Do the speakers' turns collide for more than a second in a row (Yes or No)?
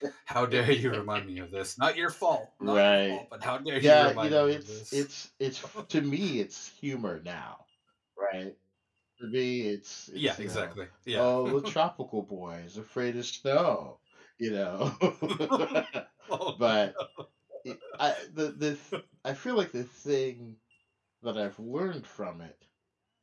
Yes